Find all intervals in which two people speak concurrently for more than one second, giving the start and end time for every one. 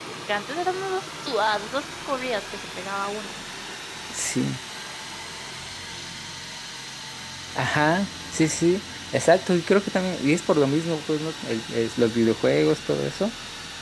none

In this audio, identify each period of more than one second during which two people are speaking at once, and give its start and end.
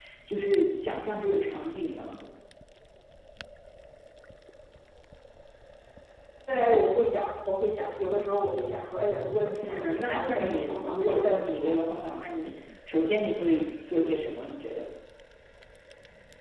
9.6-11.7

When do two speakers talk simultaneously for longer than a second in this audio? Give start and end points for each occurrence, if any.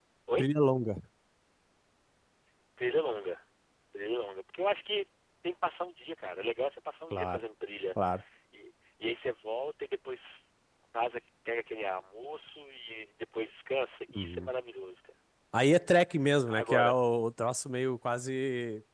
none

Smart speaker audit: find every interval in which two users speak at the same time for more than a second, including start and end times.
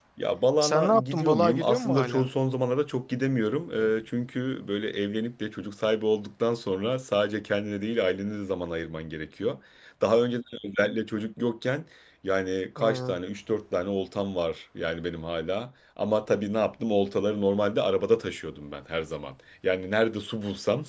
0.6-2.3

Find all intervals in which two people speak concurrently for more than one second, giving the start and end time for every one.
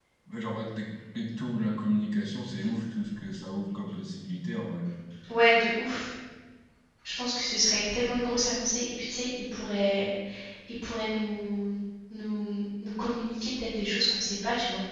none

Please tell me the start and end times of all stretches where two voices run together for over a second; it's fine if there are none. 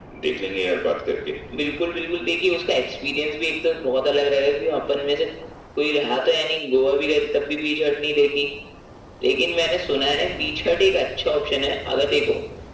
none

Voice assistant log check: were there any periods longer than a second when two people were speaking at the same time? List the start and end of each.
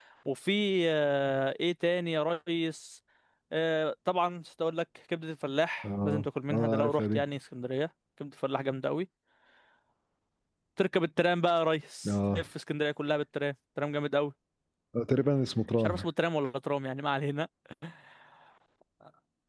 5.8-7.2

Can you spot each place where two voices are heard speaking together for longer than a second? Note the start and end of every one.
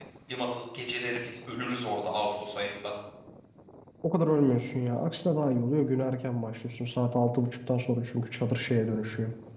none

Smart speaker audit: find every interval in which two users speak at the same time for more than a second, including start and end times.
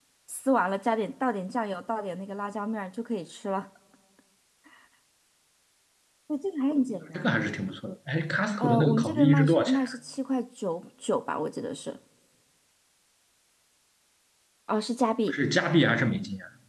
8.6-9.8

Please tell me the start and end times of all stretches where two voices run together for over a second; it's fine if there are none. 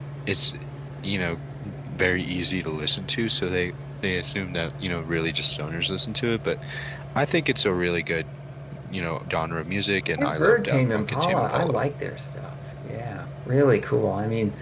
10.2-11.8

